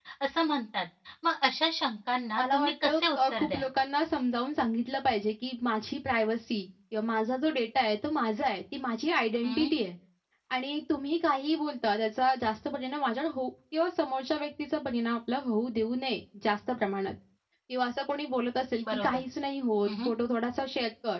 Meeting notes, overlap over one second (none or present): present